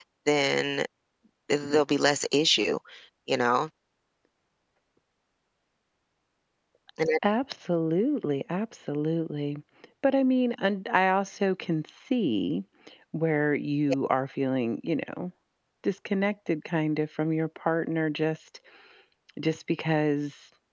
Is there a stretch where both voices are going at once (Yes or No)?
No